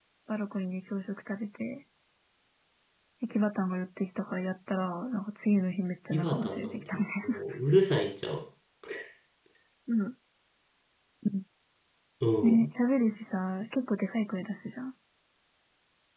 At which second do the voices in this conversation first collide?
6 s

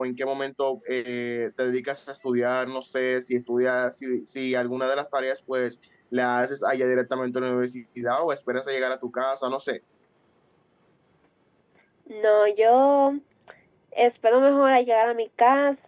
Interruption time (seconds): none

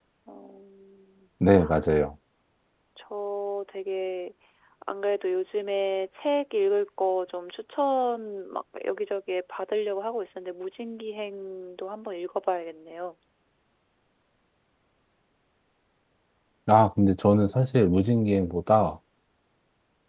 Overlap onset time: none

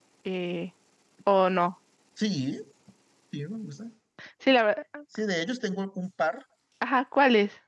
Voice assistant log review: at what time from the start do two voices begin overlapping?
none

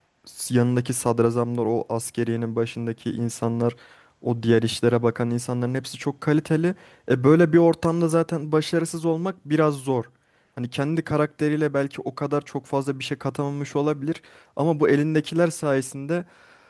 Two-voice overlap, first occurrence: none

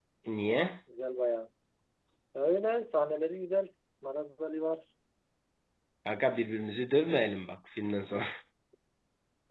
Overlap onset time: none

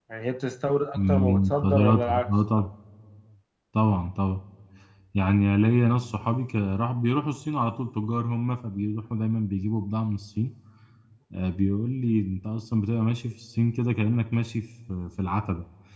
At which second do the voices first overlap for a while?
1 s

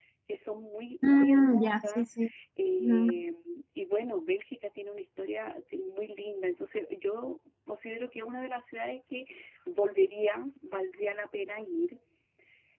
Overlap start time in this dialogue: 1 s

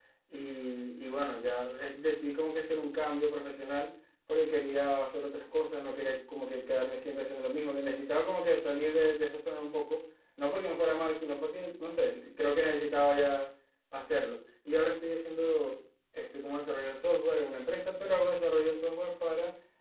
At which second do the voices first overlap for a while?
none

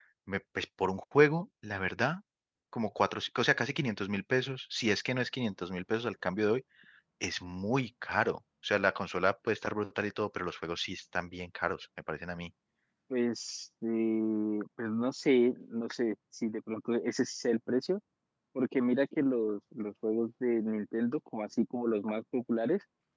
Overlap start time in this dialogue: none

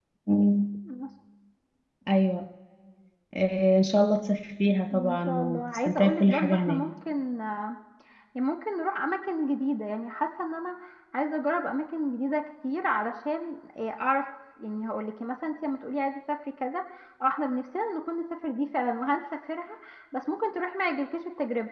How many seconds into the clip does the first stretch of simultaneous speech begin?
5 s

